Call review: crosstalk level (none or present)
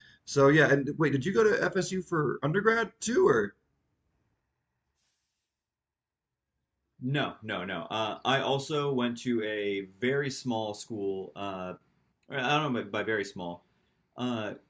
none